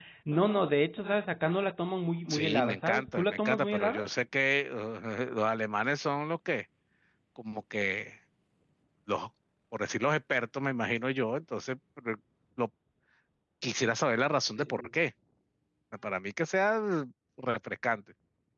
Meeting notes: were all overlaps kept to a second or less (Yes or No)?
No